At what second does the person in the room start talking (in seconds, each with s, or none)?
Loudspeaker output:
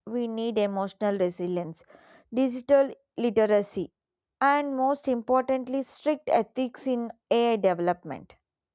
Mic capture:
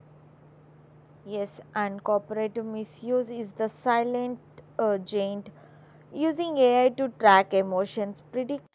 1.3 s